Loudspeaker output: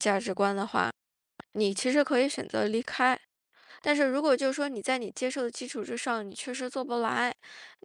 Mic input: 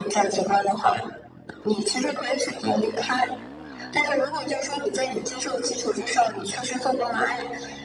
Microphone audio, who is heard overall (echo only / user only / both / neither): echo only